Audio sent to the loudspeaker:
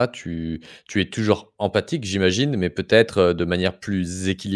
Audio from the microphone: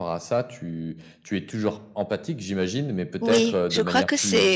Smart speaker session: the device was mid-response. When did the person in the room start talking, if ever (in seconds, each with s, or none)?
3.2 s